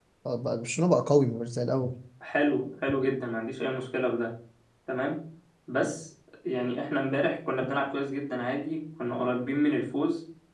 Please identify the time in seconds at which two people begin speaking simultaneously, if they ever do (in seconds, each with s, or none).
none